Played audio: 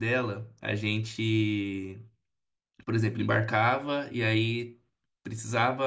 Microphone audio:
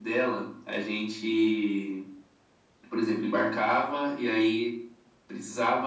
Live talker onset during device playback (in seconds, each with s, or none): none